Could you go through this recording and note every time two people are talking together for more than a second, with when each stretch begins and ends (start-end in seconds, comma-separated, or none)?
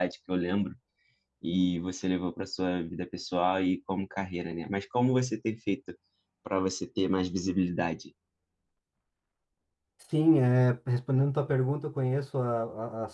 none